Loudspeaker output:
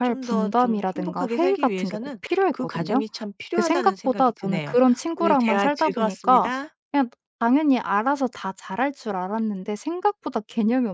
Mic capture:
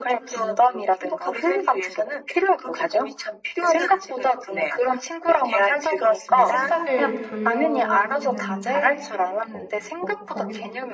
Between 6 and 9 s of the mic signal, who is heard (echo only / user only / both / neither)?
both